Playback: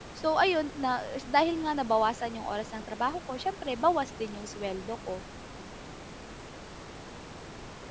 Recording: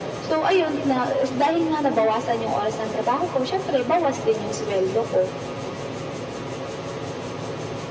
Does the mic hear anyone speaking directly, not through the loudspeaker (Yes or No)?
No